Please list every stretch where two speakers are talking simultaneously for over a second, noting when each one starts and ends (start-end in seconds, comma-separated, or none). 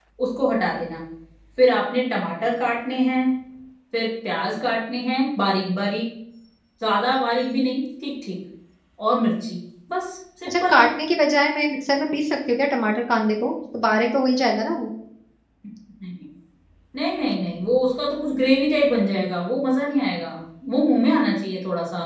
none